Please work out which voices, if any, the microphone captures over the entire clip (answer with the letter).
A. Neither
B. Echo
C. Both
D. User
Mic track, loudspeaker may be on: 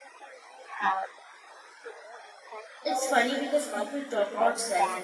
C